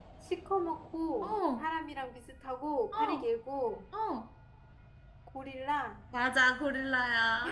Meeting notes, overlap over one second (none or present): none